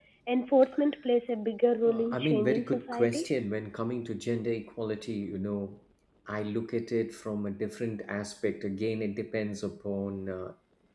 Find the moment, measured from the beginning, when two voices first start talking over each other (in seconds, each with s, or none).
1.8 s